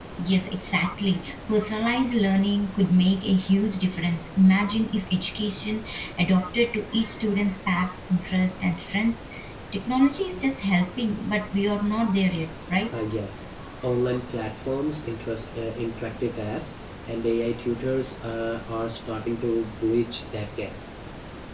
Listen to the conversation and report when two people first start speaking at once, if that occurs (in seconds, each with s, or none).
none